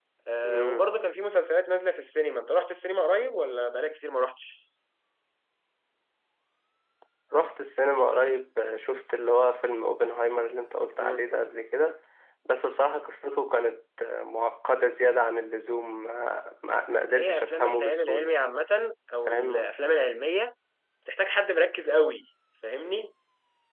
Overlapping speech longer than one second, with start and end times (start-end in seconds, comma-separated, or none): 17.1-18.3